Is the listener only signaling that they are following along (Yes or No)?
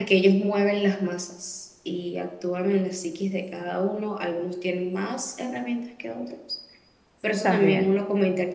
Yes